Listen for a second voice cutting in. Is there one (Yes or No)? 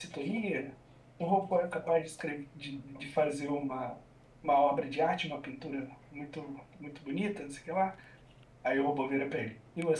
No